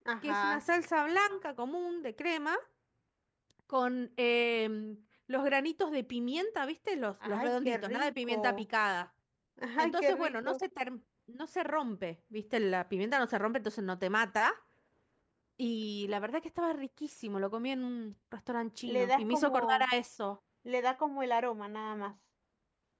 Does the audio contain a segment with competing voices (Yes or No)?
Yes